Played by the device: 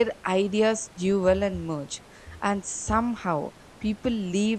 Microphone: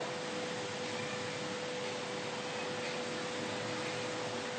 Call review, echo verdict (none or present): none